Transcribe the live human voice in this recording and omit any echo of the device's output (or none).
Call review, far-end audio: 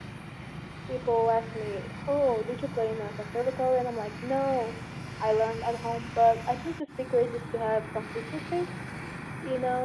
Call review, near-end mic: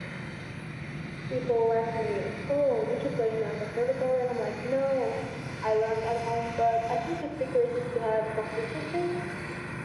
none